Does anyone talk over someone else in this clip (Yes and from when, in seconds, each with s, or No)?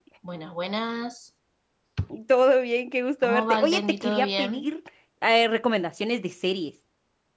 Yes, from 3.2 s